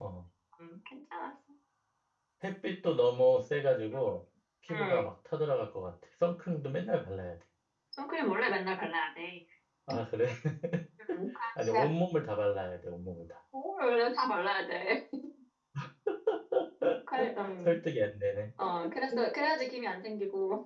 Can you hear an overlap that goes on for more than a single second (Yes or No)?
No